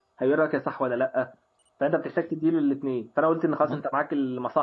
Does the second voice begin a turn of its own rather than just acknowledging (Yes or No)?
No